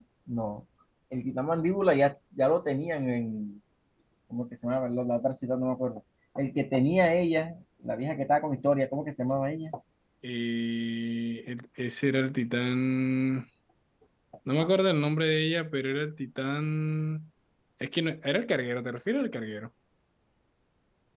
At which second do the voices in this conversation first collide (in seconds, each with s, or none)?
none